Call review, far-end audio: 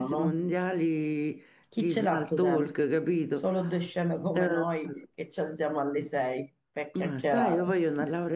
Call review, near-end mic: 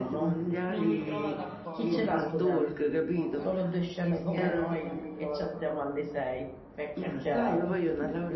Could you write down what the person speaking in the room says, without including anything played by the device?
Non mi trova d'accordo però, ma a parte tutti gli scherzi, non mi trova d'accordo.

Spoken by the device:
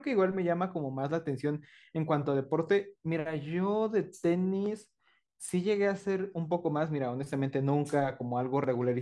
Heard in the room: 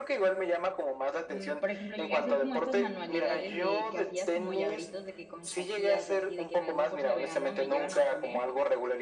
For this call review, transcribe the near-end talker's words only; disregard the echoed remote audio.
Mm, por ejemplo, llegué a hacer como estas manualidades de que hacías como llaveritos de que con Shakiras y así, de que en algún curso de verano me llevan a poner

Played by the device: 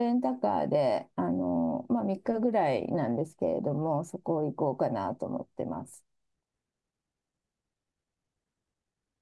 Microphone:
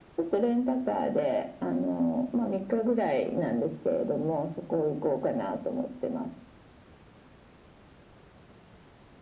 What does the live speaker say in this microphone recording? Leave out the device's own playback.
none

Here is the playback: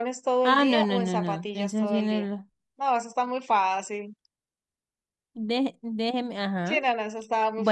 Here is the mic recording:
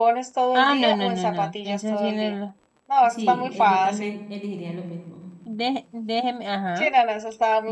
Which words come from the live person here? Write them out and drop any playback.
Sí, eh, yo también elegiría lo mismo.

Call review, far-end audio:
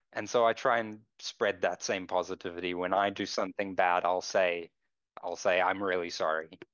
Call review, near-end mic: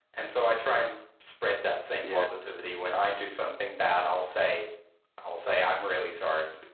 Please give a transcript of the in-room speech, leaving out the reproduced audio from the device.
Yeah.

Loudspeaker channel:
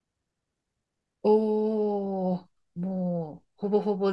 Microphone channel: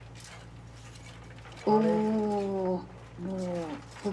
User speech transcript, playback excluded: それ

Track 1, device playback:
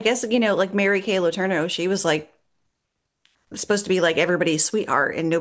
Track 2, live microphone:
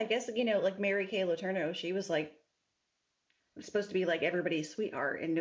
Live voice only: none

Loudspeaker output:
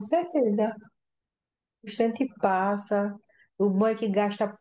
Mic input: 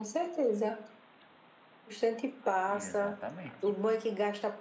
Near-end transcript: E exatamente.

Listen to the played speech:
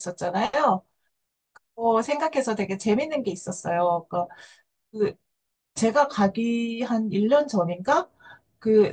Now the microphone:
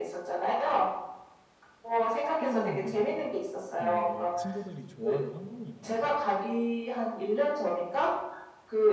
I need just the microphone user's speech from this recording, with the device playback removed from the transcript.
특별한 그, 그 친구들이 좋아하는 환경이 있나요?

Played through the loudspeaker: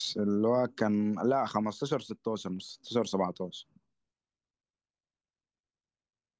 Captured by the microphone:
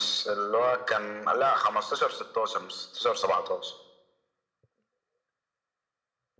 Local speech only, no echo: none

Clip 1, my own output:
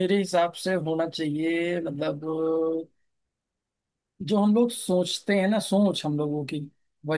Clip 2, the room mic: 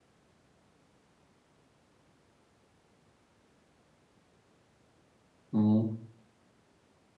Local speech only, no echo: हम्म

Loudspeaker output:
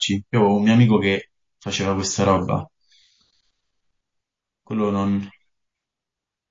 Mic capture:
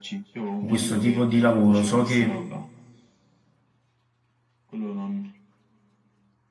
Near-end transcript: in questo tipo di lavoro, so che

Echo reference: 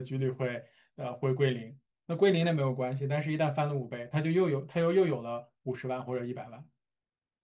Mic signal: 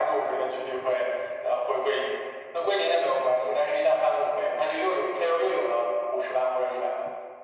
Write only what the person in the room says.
none

